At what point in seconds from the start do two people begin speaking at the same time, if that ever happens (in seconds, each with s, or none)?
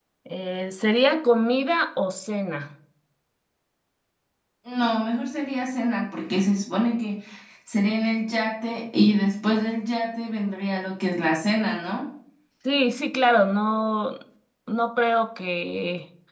none